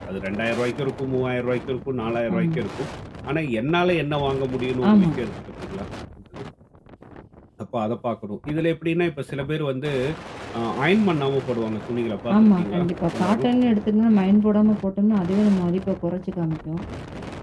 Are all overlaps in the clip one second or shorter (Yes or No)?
Yes